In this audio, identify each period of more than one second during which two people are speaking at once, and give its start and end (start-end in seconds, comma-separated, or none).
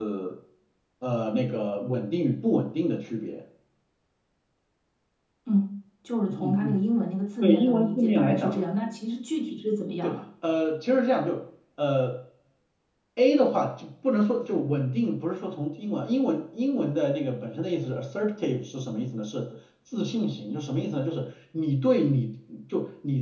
7.4-8.6